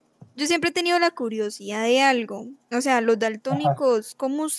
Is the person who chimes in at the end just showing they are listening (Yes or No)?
Yes